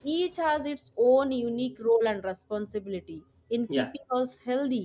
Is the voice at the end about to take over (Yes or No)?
No